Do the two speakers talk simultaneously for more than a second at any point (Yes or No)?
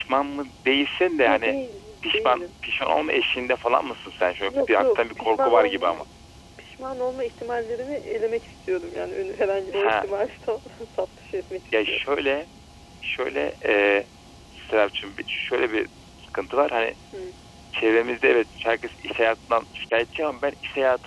Yes